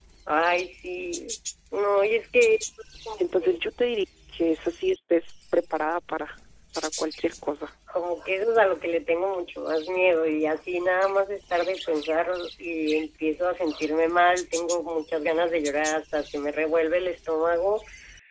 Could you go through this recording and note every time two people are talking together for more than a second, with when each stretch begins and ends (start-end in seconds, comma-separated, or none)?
none